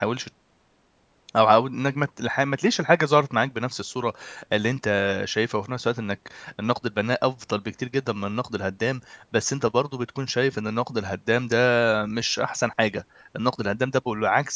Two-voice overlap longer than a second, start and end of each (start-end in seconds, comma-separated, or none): none